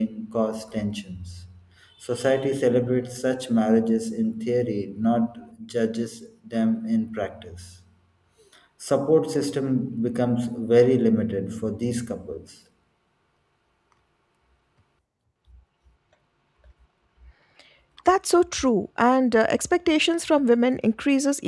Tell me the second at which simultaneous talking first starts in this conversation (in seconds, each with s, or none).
none